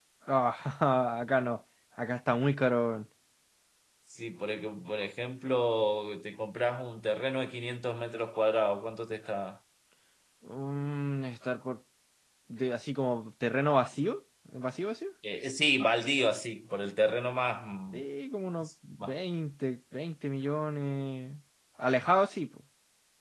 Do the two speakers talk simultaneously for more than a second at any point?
No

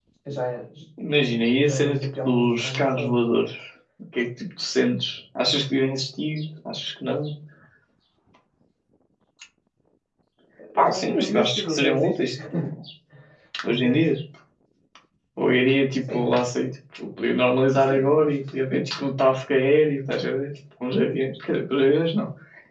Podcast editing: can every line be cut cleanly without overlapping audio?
No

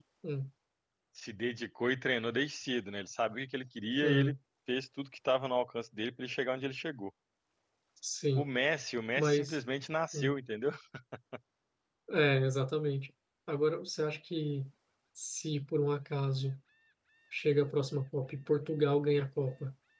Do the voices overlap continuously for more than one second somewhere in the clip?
No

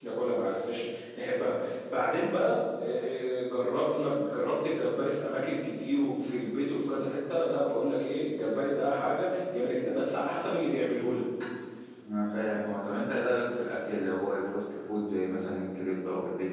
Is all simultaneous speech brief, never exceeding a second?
Yes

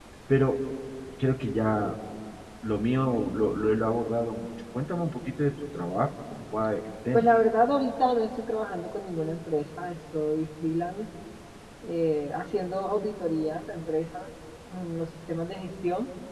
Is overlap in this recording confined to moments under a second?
Yes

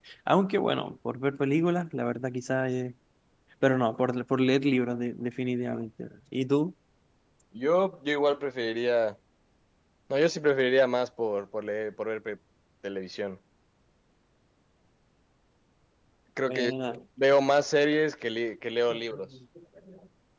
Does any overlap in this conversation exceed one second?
No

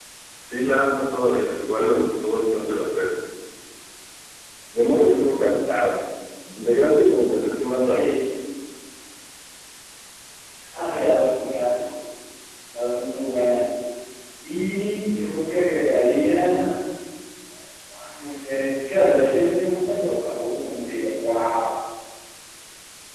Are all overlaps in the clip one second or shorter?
Yes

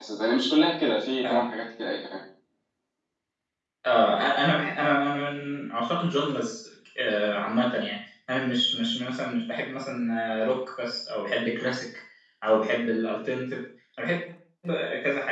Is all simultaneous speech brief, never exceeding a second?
Yes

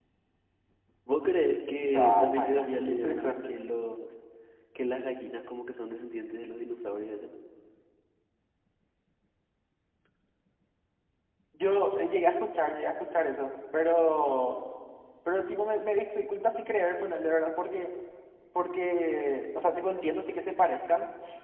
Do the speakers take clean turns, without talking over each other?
No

